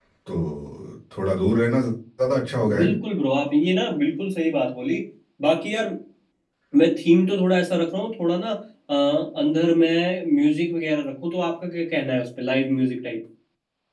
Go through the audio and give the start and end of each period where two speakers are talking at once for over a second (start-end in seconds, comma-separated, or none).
none